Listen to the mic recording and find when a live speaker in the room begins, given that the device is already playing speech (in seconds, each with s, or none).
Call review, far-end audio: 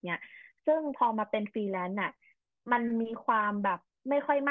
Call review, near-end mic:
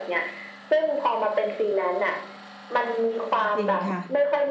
3.2 s